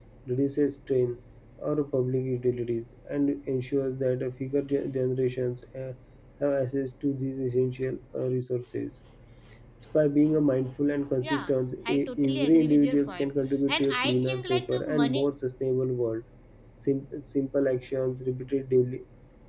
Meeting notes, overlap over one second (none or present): present